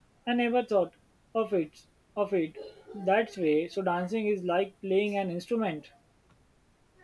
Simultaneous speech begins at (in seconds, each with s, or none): none